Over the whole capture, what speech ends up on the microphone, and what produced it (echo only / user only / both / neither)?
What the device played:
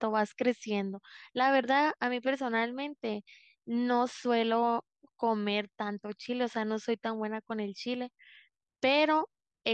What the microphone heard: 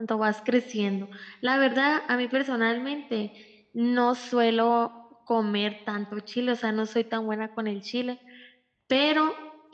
echo only